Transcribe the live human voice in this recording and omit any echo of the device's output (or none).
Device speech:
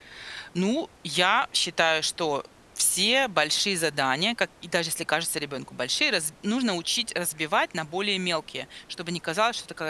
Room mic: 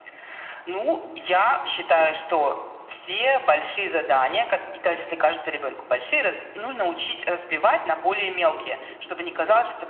none